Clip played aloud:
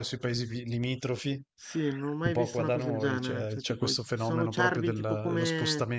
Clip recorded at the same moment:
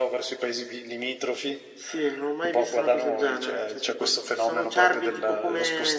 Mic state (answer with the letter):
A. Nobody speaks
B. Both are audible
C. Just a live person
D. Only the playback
D